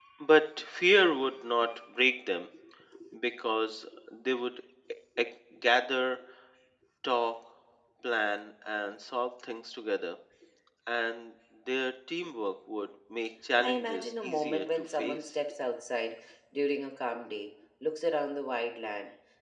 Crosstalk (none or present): present